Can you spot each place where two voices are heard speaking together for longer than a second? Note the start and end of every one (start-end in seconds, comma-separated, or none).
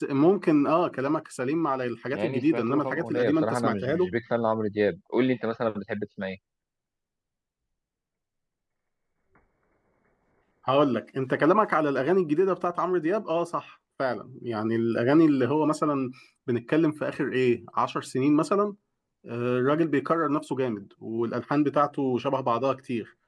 2.1-4.1